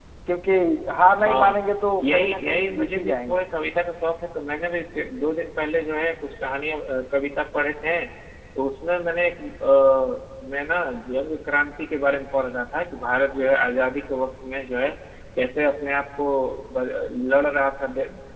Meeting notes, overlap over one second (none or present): present